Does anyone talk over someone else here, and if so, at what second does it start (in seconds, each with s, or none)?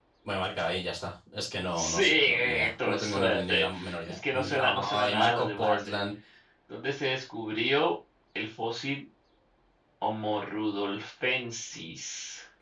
1.8 s